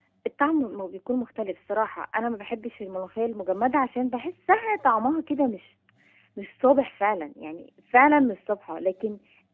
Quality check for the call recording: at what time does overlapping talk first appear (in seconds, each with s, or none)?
none